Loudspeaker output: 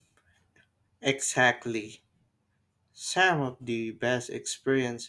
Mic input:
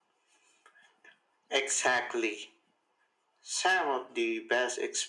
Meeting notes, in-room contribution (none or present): none